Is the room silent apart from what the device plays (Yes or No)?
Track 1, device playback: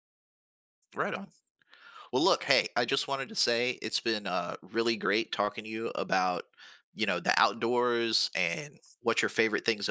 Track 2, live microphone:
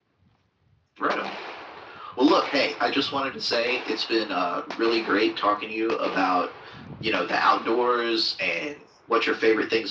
Yes